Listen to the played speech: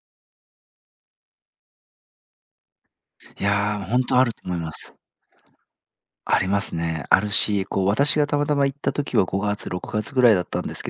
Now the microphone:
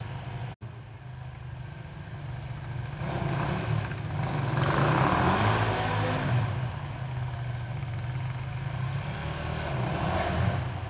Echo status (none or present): none